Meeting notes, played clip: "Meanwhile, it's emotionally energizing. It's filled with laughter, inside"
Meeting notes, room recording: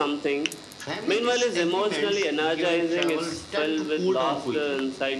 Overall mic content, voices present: both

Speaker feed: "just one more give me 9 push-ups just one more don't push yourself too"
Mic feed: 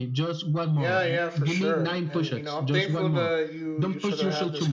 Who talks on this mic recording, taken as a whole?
both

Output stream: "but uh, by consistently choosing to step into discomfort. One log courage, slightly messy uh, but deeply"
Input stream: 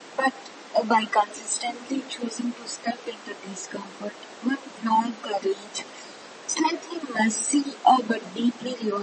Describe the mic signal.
echo only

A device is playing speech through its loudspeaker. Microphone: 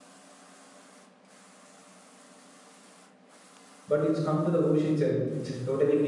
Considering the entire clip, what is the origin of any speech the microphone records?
user only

